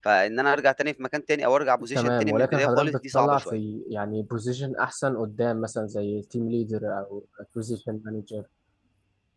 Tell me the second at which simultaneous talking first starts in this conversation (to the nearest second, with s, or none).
2 s